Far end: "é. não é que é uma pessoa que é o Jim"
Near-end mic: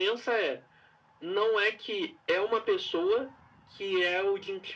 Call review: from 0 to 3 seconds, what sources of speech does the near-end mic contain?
echo only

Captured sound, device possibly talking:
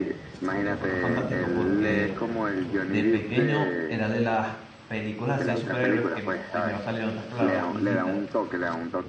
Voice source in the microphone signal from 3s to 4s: both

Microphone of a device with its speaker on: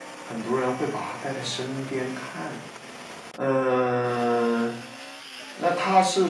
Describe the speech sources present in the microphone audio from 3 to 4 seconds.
echo only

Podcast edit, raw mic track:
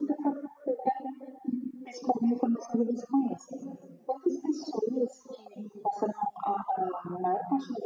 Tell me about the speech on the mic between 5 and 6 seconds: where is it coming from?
echo only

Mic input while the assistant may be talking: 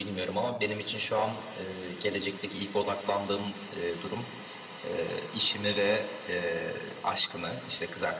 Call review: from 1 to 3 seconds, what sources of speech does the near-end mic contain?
echo only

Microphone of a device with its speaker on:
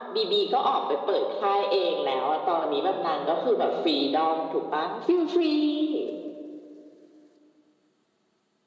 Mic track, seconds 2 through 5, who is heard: echo only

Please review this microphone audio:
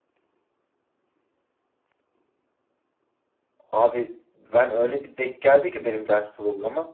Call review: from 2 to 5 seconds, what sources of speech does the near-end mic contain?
user only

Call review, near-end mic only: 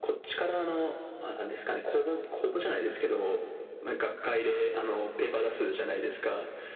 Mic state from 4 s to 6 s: echo only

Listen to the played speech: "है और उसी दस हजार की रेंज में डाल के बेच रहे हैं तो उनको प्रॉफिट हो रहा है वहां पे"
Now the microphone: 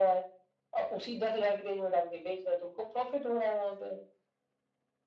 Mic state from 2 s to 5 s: echo only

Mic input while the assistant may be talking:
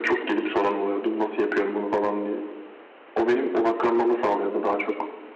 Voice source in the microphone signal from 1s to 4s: echo only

